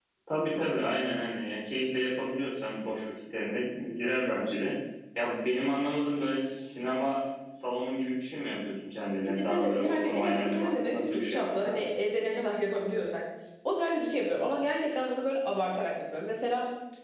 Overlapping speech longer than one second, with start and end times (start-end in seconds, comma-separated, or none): 9.2-11.8